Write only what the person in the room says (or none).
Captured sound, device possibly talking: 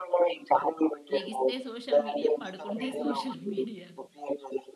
లెగిస్తే సోషల్ మీడియా, పడుకుంటే సోషల్ మీడియా.